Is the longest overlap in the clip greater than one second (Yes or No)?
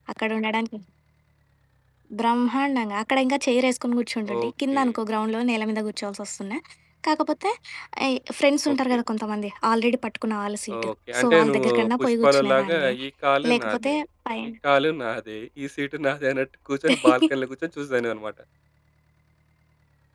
Yes